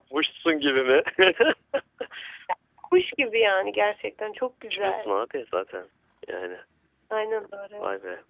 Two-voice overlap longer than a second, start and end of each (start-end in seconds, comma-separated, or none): none